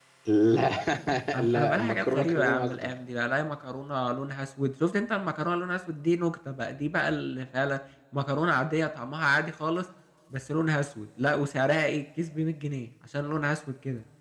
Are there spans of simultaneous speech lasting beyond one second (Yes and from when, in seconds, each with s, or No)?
Yes, from 1.5 s